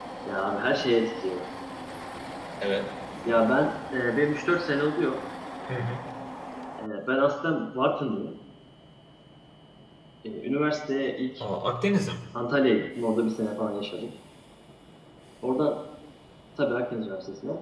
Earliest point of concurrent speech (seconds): none

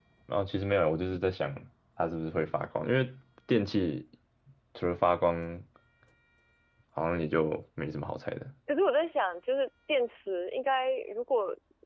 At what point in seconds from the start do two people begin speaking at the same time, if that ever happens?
none

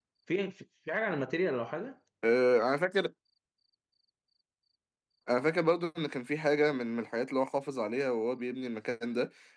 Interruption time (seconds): none

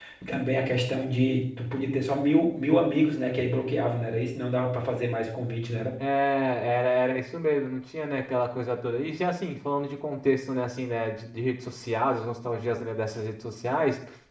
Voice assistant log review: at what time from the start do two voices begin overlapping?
none

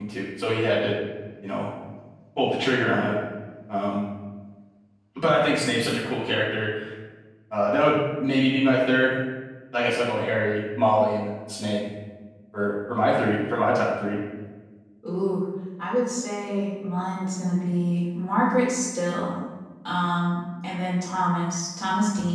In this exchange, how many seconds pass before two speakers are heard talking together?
none

